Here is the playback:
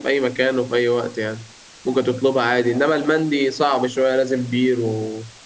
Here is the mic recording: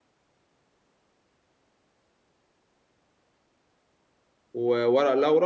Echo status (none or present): none